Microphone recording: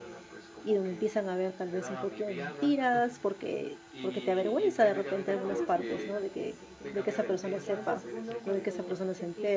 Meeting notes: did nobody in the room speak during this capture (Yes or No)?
No